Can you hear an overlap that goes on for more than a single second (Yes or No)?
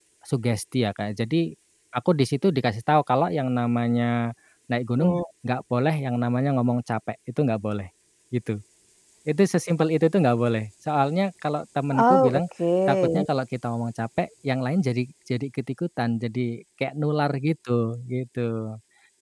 No